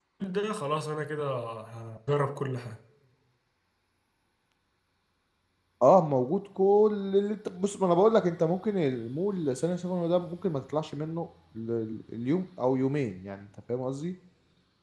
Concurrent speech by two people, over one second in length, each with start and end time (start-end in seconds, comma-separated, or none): none